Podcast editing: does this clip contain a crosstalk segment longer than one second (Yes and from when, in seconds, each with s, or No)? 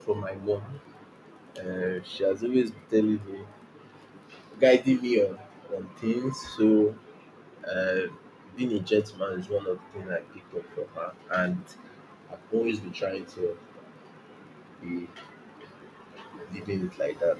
No